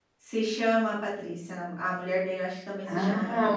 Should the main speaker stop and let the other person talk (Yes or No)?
Yes